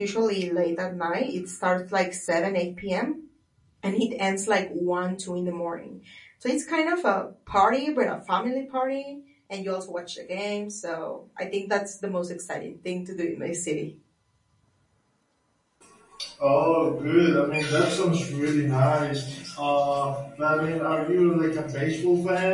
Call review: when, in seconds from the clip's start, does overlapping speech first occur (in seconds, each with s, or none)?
none